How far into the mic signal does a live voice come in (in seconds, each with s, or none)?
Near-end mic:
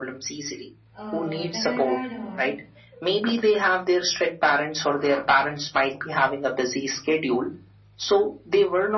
0.9 s